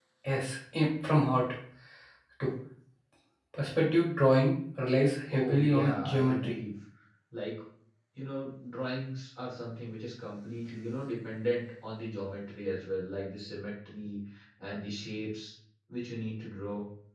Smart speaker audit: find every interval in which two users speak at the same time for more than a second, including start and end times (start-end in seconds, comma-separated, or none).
5.3-6.5